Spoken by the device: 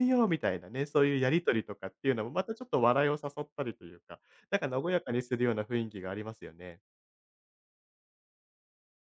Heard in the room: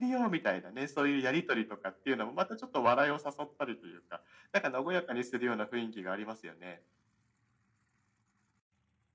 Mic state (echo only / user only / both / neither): echo only